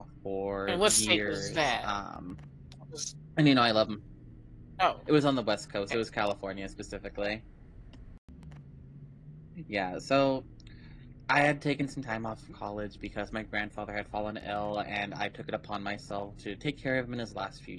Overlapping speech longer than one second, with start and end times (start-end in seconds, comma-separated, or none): 0.7-1.9